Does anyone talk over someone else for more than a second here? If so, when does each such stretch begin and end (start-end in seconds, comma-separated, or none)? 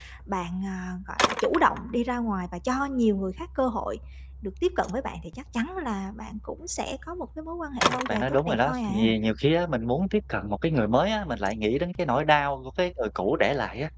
7.8-9.1